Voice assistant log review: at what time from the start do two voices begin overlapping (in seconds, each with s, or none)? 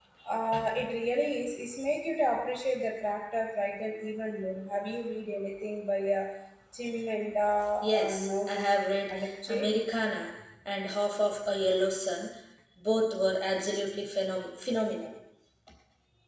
7.8 s